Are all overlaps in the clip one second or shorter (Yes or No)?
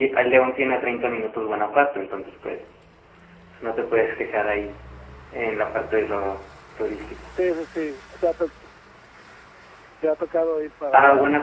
Yes